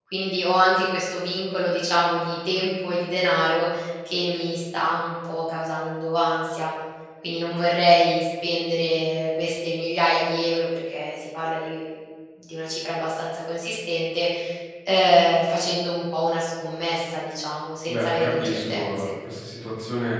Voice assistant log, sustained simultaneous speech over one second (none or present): present